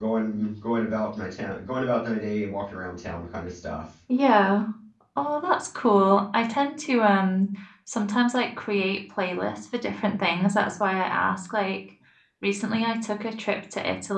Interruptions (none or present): none